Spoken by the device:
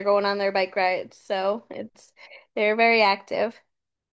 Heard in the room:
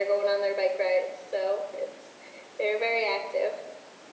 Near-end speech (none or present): none